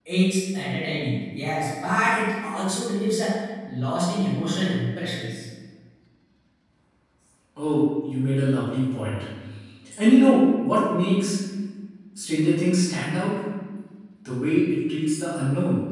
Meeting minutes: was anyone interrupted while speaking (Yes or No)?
No